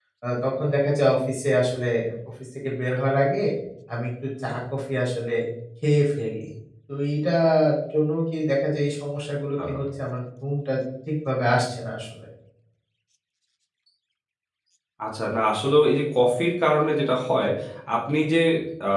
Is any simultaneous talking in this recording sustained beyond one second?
No

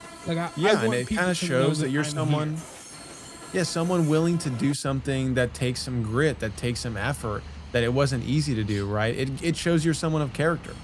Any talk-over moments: Yes, from 0.6 s

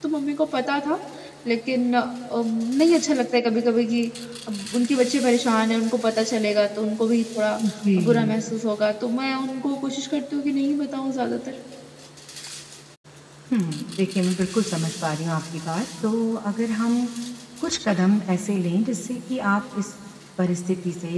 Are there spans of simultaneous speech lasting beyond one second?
No

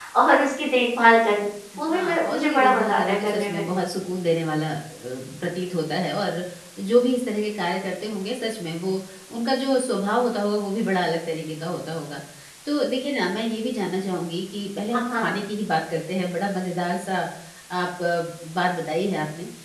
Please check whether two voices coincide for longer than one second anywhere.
Yes, from 1.9 s

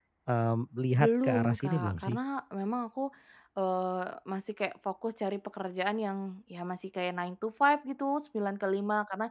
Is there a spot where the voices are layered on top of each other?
Yes, from 1.0 s

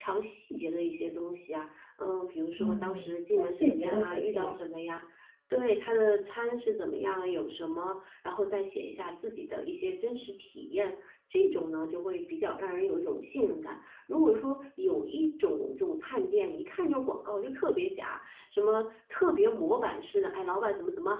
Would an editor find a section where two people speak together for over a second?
Yes, from 2.6 s

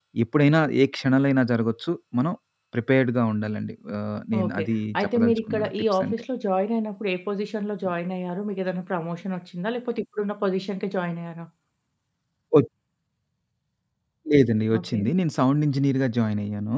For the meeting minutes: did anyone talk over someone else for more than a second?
Yes, from 4.4 s

